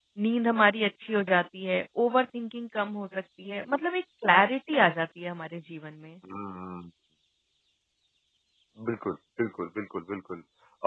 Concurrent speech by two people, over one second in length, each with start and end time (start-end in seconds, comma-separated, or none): none